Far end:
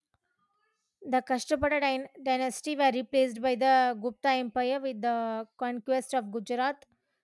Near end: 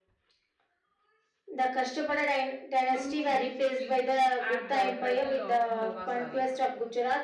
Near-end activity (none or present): present